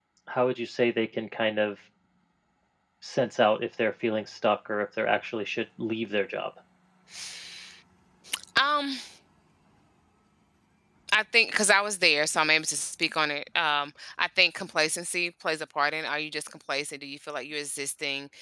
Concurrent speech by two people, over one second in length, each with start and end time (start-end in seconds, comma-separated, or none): none